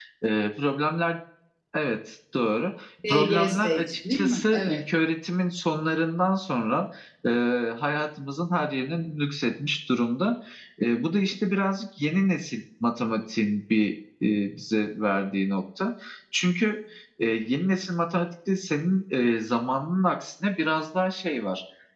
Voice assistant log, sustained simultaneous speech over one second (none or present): present